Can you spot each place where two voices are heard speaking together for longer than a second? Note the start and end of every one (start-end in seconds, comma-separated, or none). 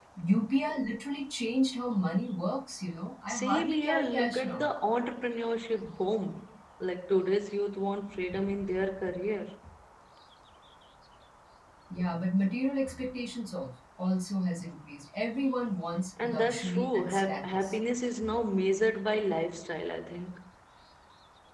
3.3-4.6, 16.2-17.8